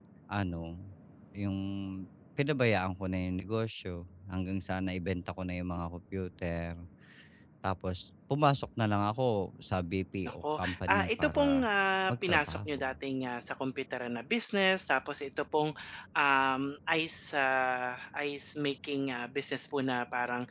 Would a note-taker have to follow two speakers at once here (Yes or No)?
Yes